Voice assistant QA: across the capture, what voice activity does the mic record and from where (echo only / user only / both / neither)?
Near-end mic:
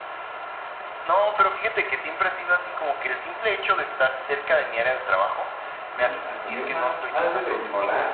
both